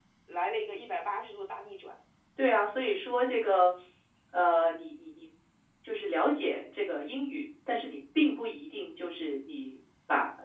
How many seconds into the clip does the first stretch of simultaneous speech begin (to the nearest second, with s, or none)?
none